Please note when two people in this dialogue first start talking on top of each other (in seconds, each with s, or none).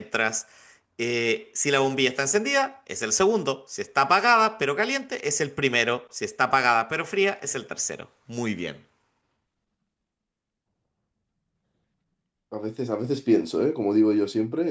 none